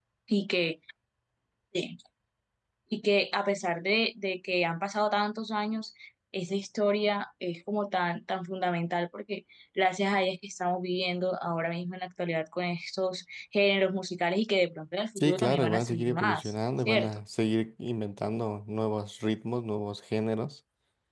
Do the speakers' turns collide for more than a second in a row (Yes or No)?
Yes